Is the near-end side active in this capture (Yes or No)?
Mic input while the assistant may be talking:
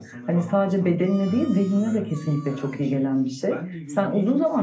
Yes